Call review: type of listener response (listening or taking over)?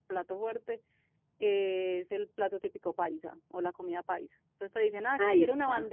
listening